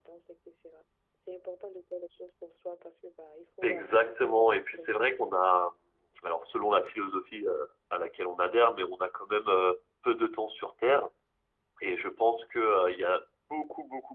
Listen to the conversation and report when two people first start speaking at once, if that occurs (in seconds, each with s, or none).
3.6 s